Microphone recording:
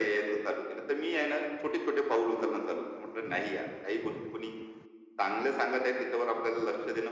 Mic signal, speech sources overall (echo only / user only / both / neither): echo only